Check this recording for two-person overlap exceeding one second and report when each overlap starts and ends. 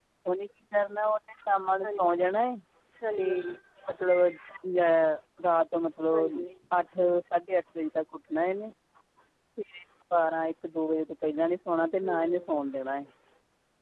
none

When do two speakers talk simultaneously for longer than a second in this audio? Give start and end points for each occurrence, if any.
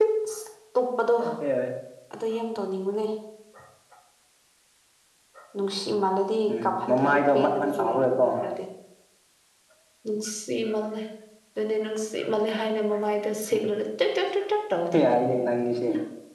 6.5-8.2

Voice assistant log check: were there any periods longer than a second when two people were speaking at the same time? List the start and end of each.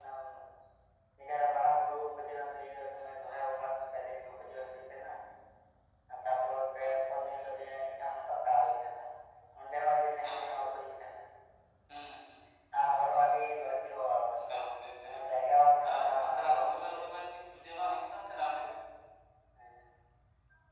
15.8-17.2

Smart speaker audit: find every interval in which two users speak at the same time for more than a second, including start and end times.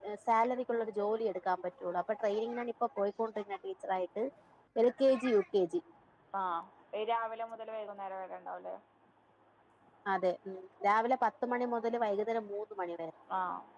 none

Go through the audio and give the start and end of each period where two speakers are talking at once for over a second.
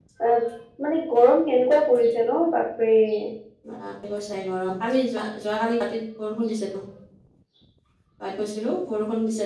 none

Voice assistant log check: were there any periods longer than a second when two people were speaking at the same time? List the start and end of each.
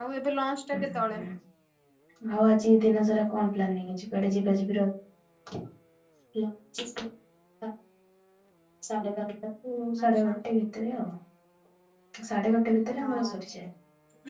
none

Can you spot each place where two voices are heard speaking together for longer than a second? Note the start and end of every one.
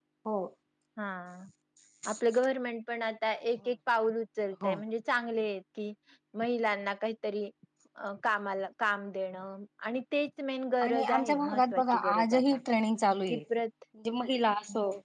10.8-12.4

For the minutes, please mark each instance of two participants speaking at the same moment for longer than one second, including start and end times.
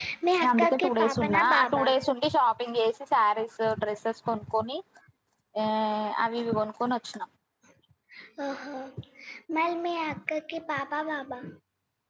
0.5-1.9

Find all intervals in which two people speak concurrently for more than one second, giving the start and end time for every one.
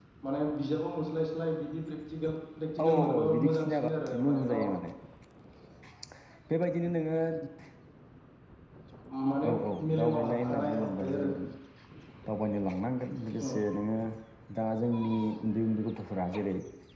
2.8-4.5, 9.9-11.3

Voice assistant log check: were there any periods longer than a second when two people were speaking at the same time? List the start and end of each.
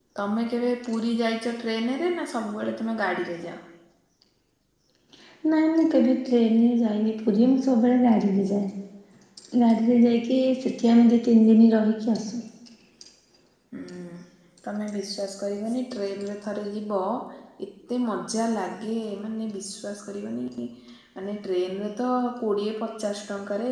none

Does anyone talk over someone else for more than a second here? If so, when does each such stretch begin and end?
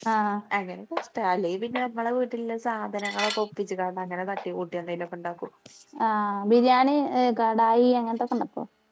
none

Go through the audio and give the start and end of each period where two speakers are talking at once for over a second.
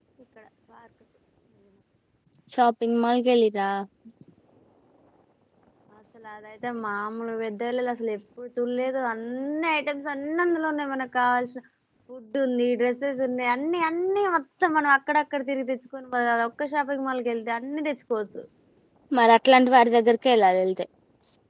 none

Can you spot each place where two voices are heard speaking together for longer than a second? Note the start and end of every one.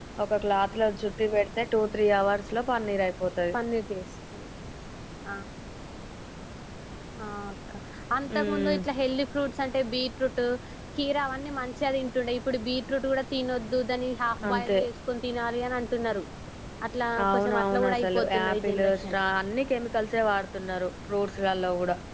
17.2-19.2

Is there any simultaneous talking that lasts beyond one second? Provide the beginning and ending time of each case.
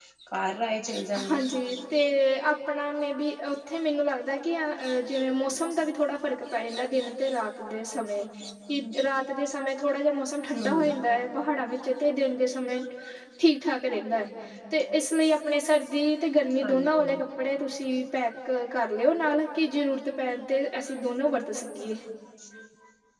none

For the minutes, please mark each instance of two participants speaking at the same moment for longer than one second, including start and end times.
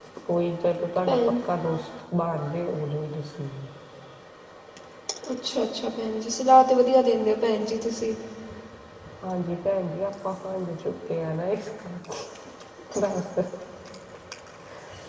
none

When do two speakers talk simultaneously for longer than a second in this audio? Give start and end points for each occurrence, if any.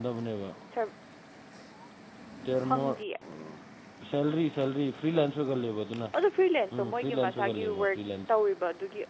6.8-8.3

